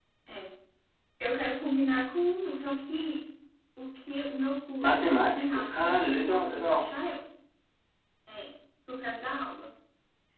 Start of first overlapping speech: 5 s

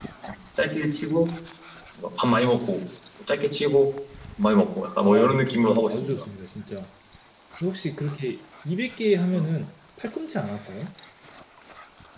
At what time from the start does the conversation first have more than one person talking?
5 s

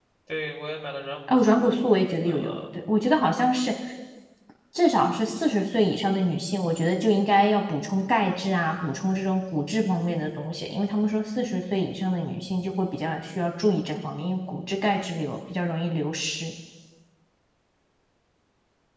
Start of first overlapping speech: 1 s

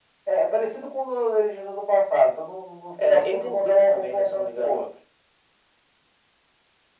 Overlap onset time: 3 s

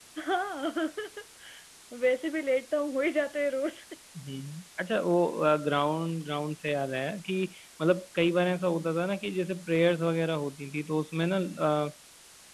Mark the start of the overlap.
none

